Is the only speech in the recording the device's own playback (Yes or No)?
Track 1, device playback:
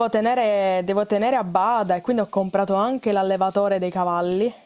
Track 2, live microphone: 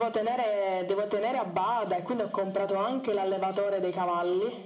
Yes